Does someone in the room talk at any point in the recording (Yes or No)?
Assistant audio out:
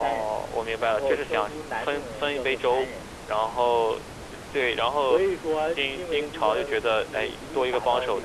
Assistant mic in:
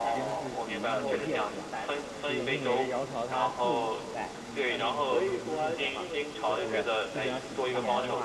Yes